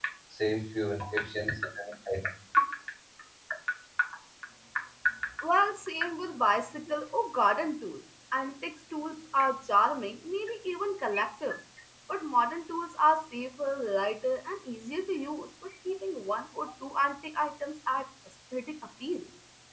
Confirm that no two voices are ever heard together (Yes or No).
Yes